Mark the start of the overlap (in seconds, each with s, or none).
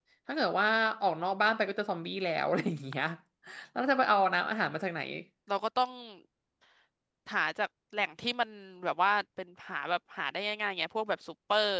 none